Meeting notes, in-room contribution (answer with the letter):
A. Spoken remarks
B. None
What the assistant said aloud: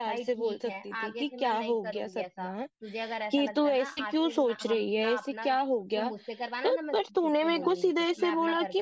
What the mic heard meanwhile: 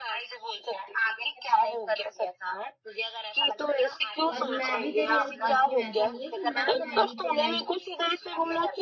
A